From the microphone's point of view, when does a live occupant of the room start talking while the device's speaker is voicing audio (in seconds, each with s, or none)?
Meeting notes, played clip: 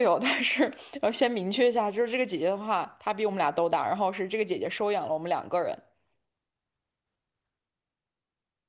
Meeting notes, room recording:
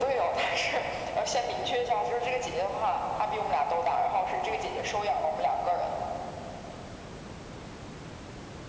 none